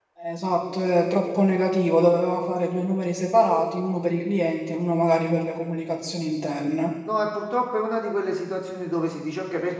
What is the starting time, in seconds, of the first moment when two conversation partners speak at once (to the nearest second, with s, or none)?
none